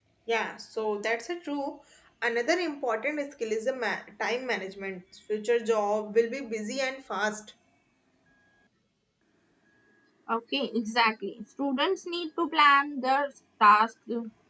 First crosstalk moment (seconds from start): none

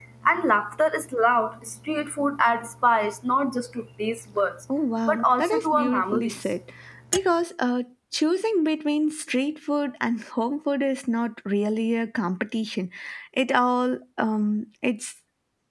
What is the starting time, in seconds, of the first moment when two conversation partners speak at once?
5 s

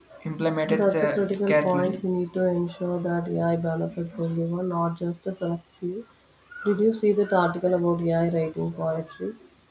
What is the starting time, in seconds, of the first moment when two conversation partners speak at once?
1 s

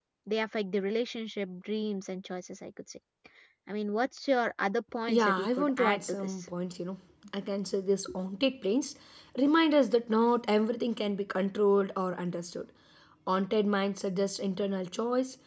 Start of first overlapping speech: 5 s

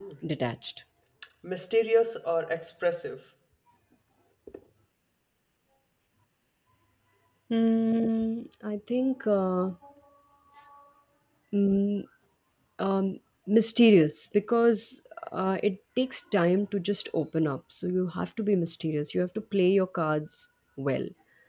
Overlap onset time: none

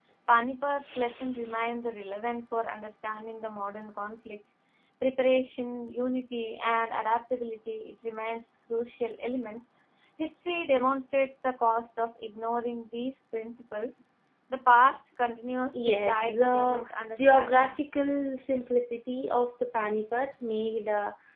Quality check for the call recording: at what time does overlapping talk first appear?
16 s

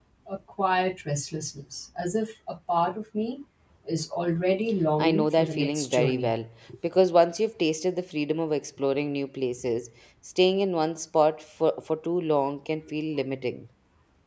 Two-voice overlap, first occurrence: 5 s

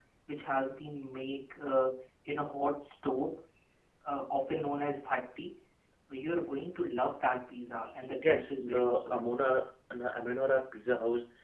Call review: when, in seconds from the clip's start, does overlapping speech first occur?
8 s

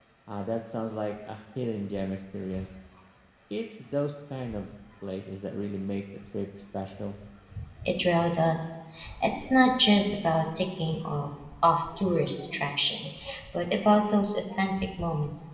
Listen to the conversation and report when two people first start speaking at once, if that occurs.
none

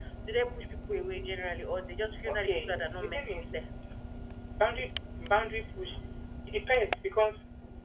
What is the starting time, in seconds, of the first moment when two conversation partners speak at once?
2 s

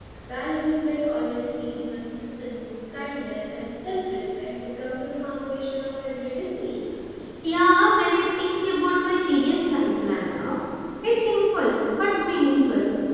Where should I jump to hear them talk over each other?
none

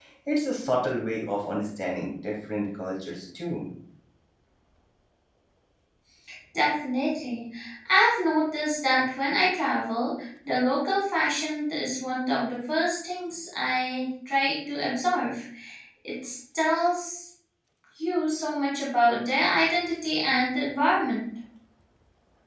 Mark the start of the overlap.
none

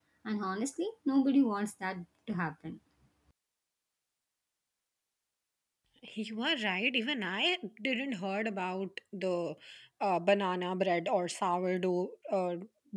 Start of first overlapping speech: none

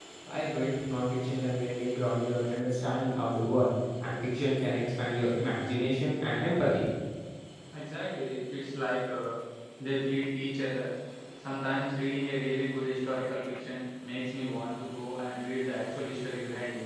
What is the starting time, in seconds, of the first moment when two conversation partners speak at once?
none

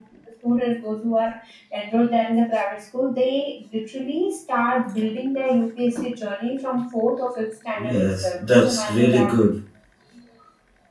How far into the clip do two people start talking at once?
8 s

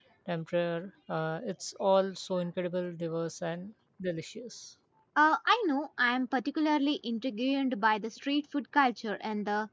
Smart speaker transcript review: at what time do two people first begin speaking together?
none

